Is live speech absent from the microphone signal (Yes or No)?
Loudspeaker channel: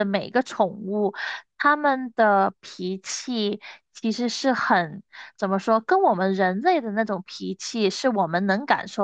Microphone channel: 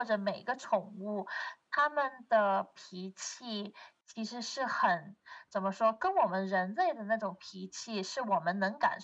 Yes